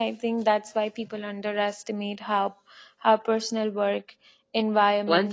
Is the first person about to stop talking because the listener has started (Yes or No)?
Yes